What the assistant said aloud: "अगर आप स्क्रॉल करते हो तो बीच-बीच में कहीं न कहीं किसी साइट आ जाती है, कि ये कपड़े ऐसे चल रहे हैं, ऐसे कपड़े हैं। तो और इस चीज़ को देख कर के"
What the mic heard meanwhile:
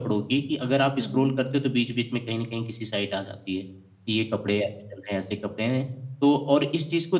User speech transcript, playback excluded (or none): हुँ, हुँ।